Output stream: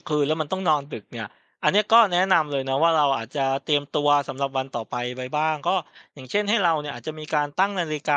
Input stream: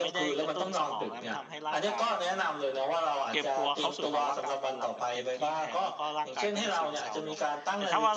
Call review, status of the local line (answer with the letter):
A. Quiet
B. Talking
B